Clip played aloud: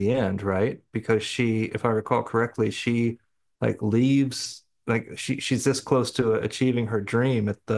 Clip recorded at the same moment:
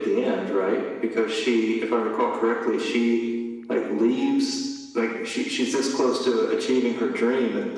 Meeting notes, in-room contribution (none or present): none